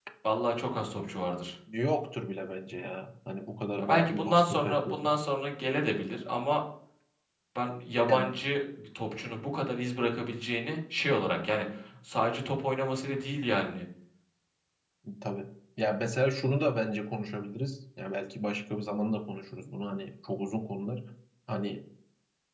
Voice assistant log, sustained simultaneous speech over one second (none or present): present